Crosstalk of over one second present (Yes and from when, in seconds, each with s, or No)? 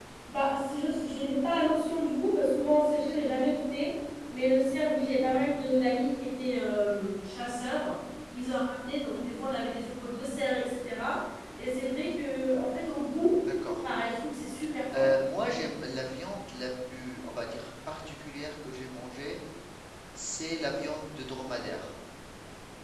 No